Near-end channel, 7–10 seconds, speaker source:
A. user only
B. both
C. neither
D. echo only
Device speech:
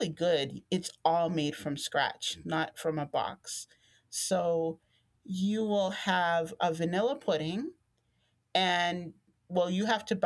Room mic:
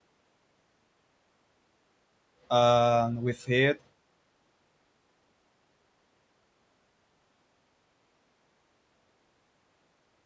C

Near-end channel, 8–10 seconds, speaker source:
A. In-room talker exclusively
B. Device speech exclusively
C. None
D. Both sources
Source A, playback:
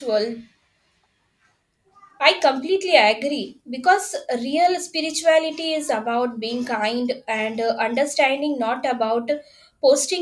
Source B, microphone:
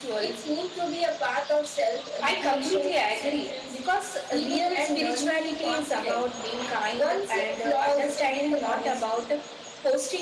D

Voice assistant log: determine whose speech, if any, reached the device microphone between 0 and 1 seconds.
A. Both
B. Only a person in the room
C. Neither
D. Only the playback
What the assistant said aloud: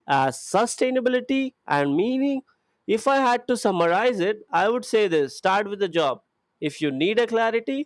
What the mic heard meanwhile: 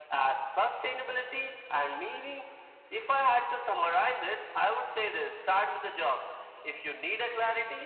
D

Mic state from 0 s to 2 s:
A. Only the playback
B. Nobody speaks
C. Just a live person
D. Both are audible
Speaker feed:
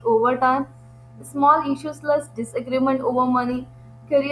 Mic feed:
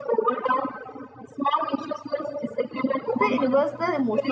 A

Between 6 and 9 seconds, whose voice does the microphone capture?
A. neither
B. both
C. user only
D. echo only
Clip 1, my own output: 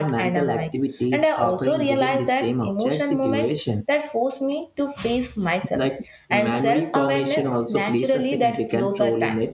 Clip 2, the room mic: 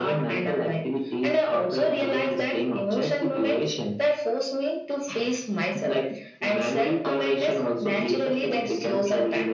D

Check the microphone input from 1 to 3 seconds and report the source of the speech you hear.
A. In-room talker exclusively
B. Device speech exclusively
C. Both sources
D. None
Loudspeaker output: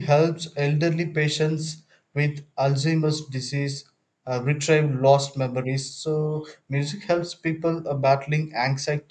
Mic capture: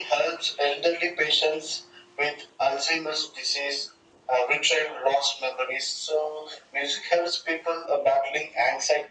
B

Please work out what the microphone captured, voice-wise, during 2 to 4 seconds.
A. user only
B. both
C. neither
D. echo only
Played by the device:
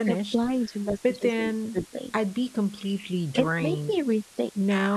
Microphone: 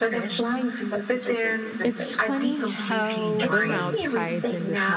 B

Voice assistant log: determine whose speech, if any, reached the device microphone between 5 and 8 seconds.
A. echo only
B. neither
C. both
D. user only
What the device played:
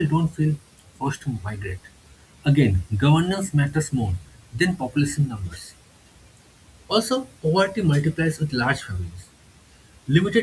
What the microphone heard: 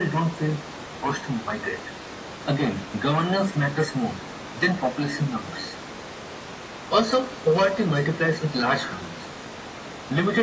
A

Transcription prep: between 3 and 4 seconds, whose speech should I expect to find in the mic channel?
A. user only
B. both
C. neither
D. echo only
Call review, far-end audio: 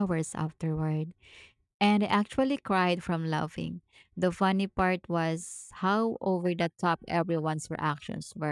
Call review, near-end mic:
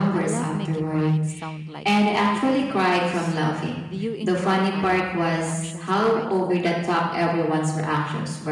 B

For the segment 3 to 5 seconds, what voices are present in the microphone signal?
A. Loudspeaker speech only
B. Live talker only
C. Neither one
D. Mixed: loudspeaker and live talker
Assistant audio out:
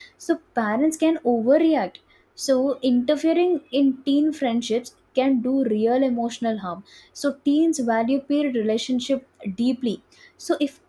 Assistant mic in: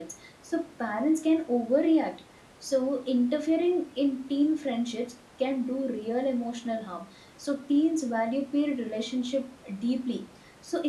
A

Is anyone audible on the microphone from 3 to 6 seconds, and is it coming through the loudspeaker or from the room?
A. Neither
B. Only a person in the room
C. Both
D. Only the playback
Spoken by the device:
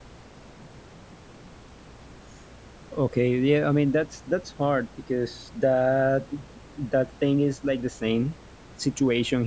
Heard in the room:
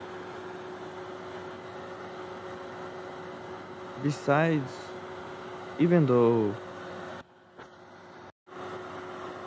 B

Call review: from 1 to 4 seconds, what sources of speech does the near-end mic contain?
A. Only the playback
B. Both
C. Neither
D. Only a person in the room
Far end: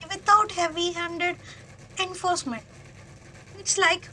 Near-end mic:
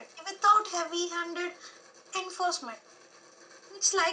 A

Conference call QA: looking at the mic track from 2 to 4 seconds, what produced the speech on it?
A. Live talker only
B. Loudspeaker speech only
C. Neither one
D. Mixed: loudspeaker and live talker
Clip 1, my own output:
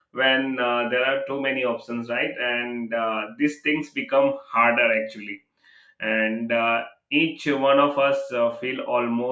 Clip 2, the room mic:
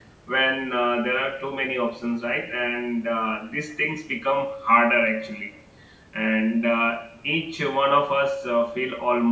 B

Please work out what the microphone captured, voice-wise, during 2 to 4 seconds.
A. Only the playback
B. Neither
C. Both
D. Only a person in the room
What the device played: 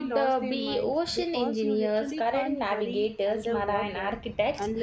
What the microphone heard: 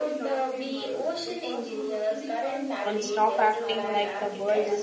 C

